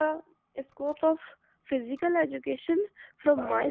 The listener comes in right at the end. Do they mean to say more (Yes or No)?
No